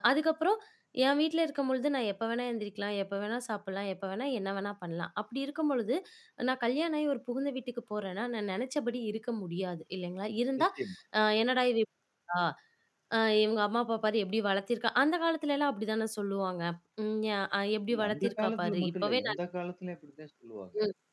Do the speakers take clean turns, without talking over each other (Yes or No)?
No